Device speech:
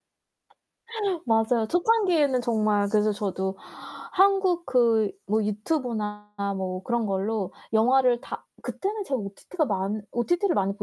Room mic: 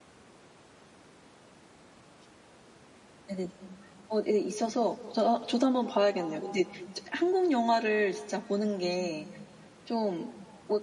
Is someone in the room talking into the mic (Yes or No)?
Yes